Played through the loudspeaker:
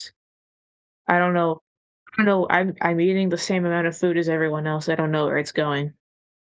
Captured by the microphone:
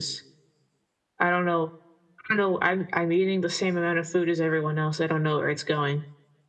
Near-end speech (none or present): none